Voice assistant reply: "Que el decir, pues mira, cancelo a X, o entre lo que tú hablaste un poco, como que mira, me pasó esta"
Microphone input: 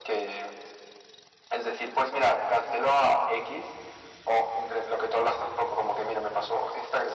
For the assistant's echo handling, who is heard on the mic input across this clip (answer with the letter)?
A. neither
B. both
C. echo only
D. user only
C